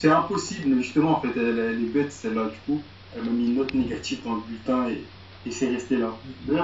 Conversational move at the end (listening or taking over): listening